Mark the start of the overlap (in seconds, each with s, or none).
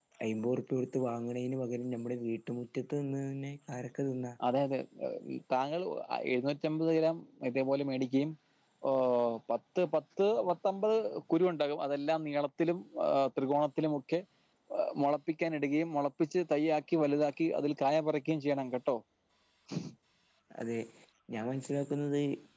none